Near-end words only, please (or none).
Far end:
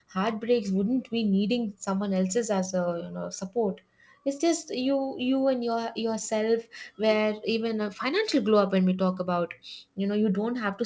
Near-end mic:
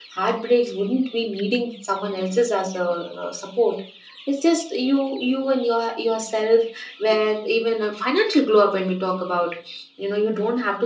none